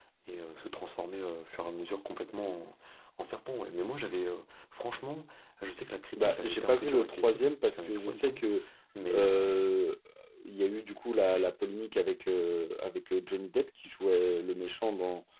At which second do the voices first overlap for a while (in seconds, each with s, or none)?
6.2 s